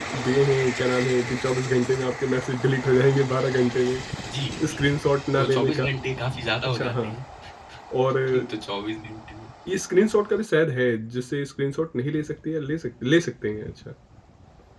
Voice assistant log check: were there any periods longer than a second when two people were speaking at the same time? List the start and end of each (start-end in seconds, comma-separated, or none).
none